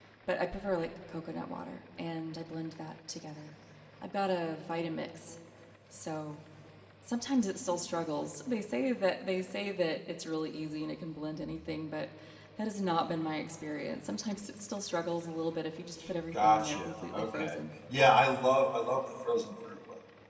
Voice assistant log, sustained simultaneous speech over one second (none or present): present